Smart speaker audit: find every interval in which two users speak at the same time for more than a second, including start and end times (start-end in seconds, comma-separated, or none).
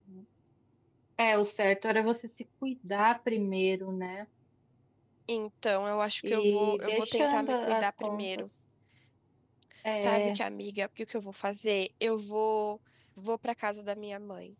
6.3-8.3